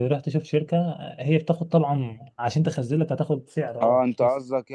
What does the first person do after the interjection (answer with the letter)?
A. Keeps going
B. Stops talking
B